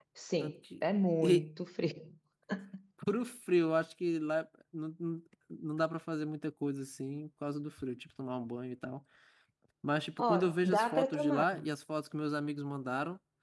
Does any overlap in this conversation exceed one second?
Yes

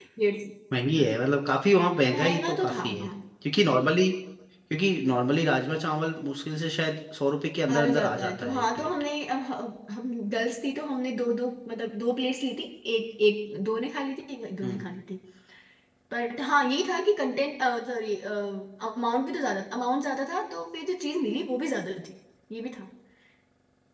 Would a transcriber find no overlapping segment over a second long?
No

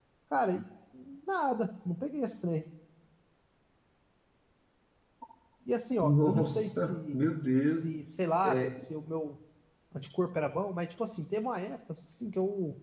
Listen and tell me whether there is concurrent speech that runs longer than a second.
Yes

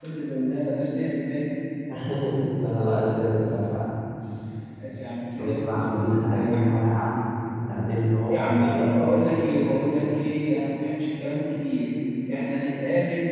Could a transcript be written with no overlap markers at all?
No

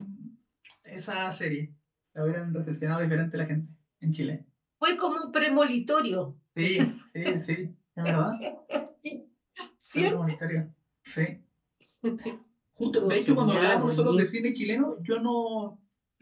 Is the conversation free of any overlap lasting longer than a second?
No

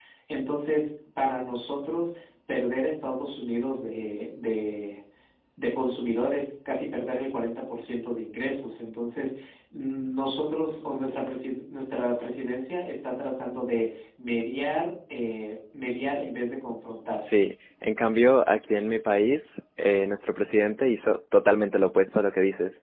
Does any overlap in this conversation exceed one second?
No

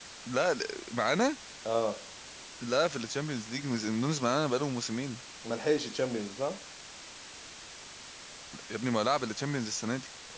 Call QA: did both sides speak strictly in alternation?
Yes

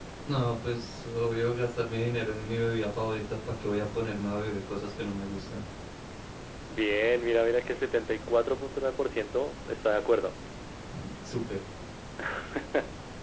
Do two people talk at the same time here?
No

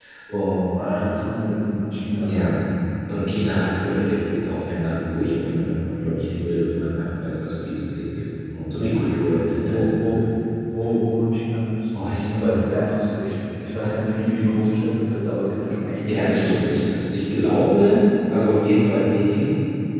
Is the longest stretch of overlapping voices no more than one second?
Yes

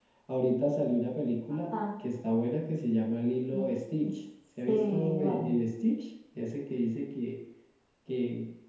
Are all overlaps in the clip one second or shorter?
No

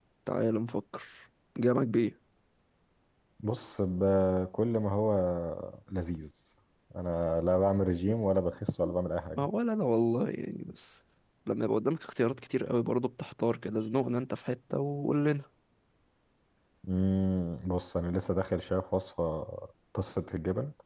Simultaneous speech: No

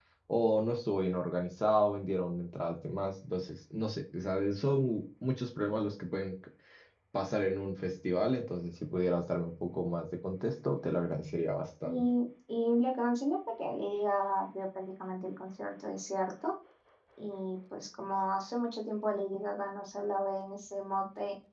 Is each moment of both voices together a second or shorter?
Yes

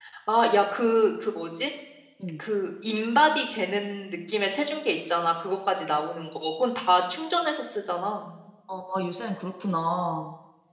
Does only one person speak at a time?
Yes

